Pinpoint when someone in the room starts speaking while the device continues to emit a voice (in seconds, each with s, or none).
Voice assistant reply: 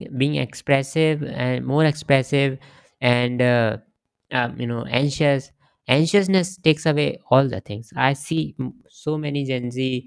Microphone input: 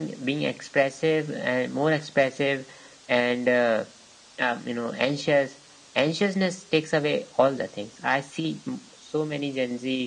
none